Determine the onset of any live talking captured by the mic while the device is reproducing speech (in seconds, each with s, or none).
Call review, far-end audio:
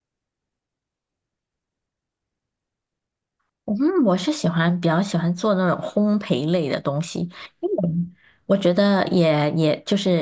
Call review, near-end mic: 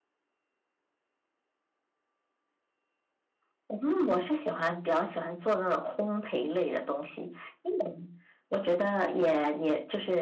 none